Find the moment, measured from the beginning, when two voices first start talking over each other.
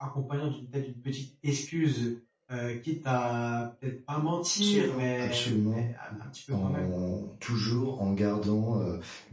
4.6 s

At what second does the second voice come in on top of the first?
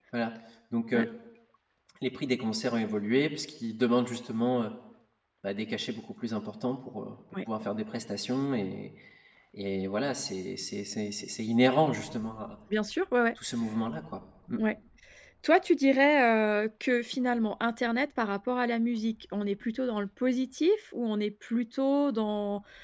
none

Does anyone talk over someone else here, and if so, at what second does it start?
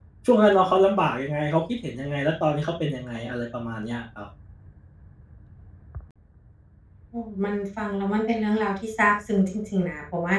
none

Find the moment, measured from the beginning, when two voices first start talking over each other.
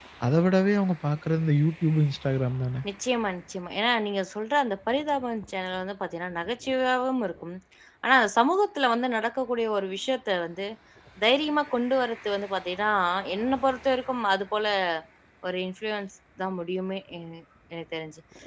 none

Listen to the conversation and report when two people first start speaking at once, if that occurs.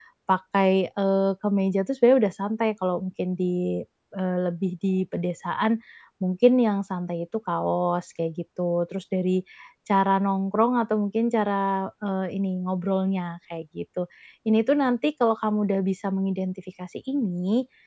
none

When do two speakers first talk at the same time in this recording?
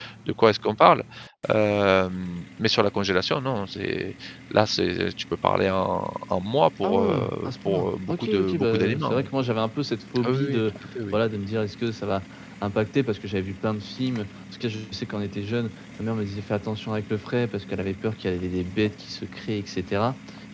6.8 s

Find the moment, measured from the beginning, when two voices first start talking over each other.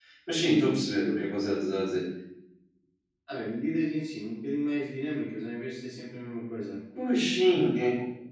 none

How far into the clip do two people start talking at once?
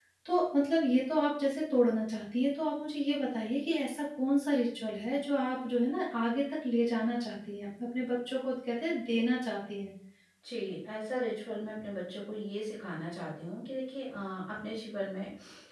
none

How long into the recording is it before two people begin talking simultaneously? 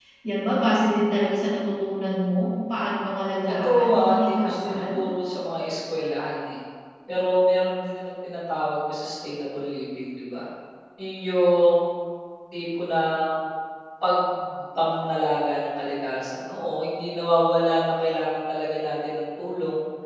3.6 s

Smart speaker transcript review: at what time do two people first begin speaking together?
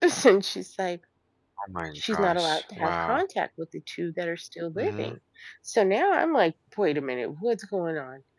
2.0 s

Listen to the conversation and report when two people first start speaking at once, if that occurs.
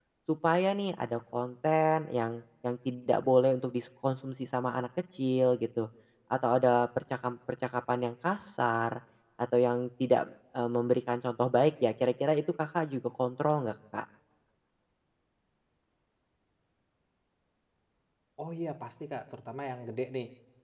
none

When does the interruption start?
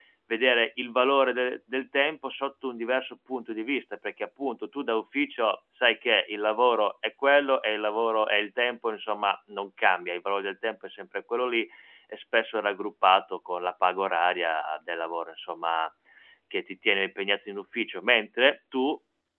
none

